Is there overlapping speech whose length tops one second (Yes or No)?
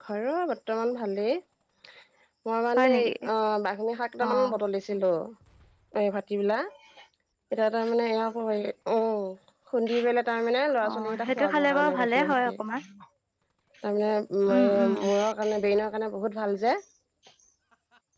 Yes